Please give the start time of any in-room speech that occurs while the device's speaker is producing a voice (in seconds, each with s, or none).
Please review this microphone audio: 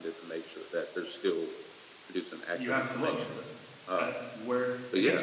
2.5 s